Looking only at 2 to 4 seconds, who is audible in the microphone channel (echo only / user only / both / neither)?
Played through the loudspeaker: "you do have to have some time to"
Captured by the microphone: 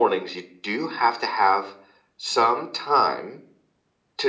echo only